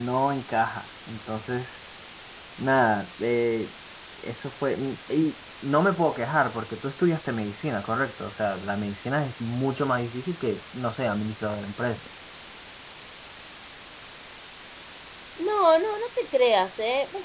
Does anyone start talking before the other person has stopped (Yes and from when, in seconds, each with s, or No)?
No